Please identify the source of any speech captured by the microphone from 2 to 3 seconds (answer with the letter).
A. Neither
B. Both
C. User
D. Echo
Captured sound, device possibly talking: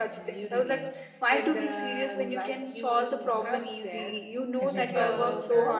D